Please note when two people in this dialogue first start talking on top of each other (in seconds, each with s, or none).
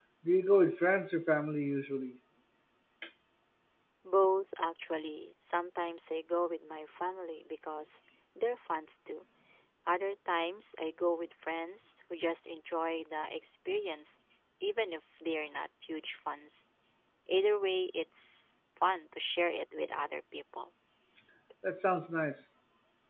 none